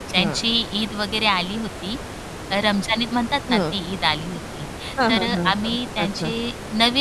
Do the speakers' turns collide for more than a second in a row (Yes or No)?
Yes